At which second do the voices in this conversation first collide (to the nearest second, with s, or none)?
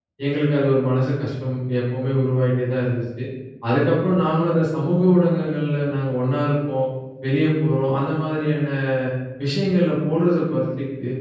none